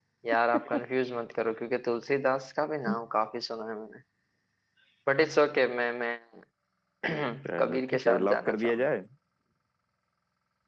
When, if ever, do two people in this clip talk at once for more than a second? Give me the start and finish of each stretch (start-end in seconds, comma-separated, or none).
7.6-8.8